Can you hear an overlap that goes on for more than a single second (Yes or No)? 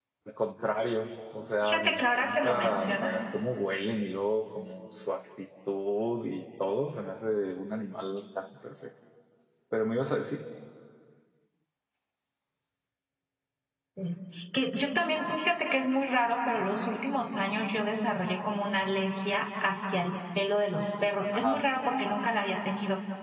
Yes